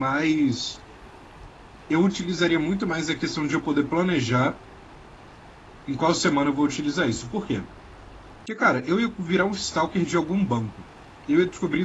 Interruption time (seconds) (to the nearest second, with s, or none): none